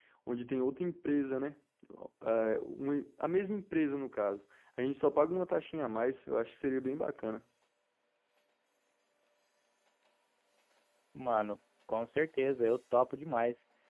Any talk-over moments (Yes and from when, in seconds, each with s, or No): No